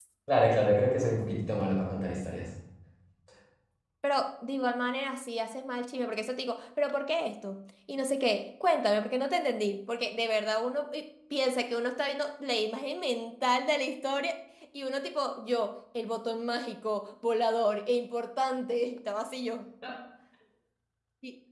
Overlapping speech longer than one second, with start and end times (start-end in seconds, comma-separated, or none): none